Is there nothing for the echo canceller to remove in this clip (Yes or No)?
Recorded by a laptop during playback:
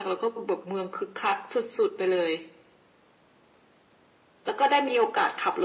No